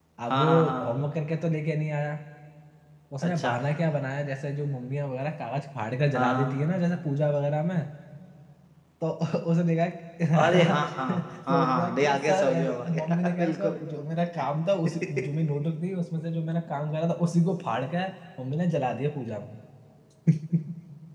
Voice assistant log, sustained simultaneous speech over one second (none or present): present